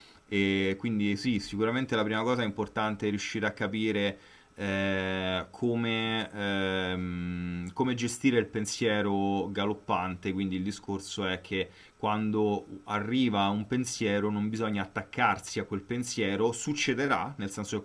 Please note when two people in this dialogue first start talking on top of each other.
none

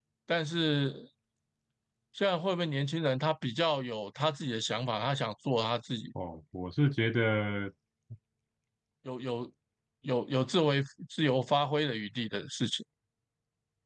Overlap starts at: none

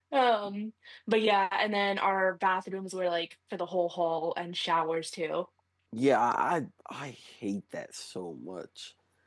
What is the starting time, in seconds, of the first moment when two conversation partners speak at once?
none

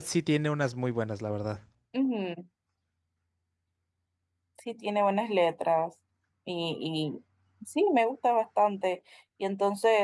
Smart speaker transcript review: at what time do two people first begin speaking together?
none

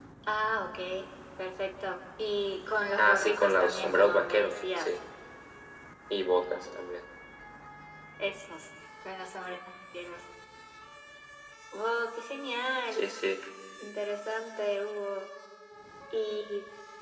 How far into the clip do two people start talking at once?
3 s

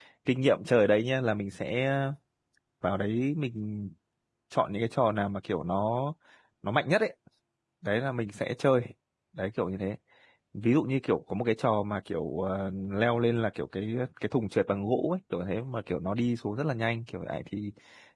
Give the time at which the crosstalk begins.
none

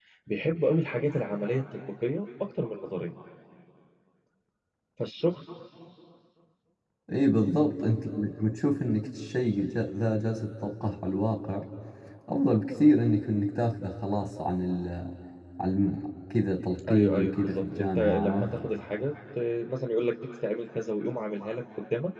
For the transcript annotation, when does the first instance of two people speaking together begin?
17 s

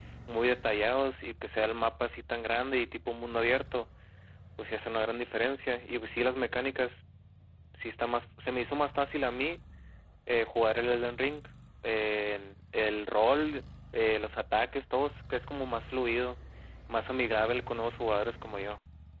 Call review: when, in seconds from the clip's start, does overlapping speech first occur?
none

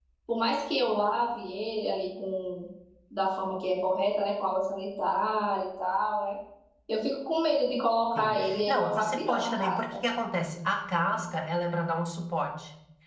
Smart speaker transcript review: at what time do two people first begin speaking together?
8 s

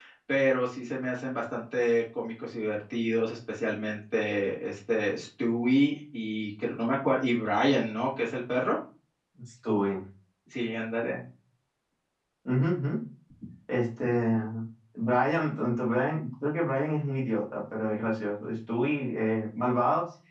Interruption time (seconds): none

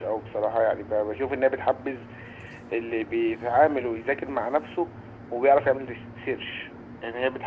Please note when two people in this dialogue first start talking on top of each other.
none

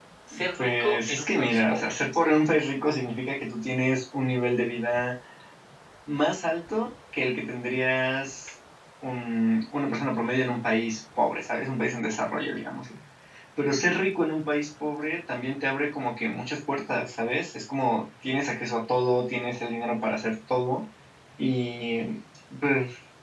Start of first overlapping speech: 1 s

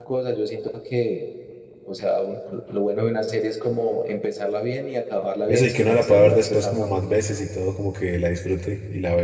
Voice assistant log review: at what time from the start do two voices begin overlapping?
5 s

